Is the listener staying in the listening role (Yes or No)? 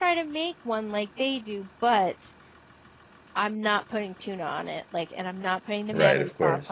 No